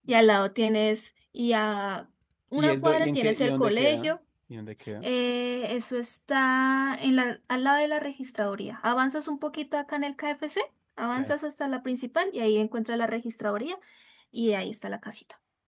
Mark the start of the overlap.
2.6 s

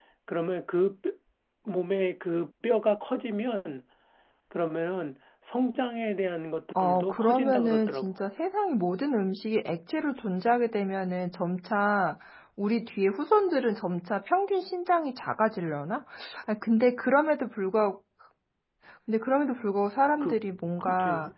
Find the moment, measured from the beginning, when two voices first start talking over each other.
6.8 s

